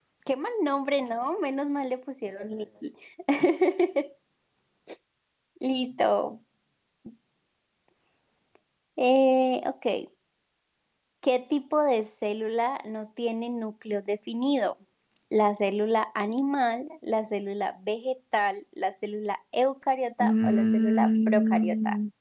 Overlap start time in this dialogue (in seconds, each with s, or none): 20.2 s